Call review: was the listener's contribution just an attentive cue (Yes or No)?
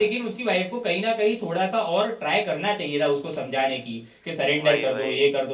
Yes